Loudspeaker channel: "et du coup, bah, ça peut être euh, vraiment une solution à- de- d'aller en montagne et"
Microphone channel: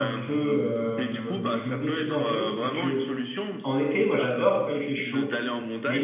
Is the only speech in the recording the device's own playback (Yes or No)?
No